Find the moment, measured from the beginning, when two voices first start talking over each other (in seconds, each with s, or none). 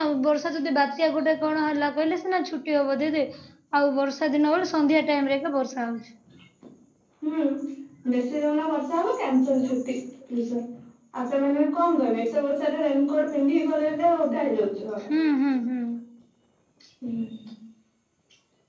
none